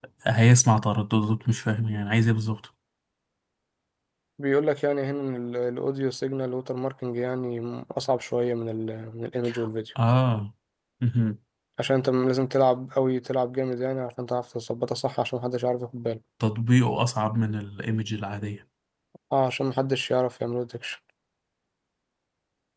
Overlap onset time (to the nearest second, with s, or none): none